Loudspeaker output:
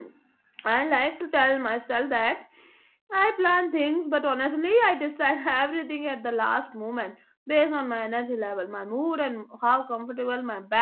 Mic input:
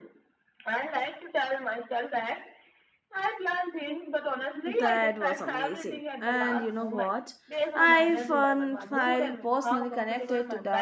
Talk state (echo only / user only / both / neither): both